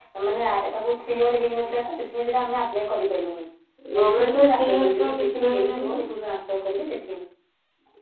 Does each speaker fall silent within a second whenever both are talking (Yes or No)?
No